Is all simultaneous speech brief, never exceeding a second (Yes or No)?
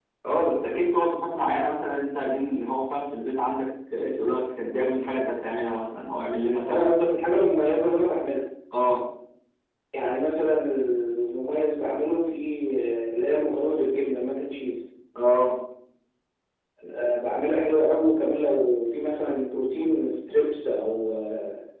Yes